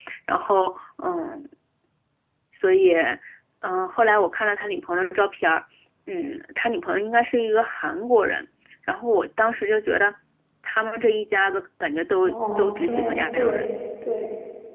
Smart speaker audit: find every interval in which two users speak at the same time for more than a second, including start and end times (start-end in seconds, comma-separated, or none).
12.2-13.6